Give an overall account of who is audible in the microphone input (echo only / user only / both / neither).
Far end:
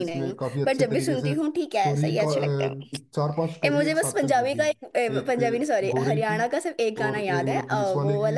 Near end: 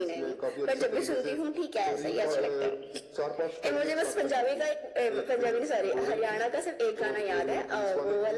echo only